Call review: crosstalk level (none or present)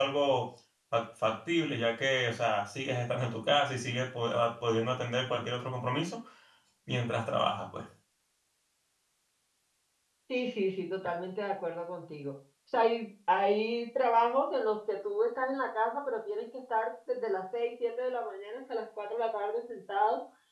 none